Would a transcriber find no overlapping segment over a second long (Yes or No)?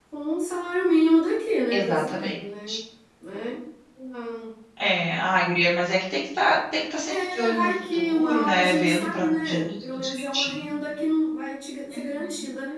No